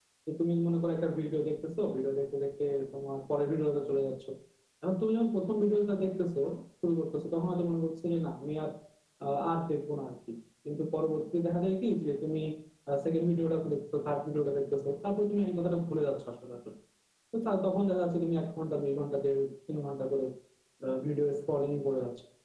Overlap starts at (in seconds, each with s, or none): none